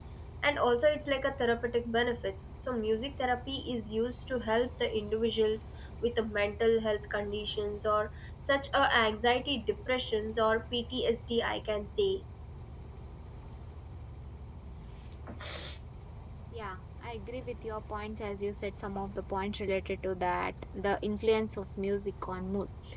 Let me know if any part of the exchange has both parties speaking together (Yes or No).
No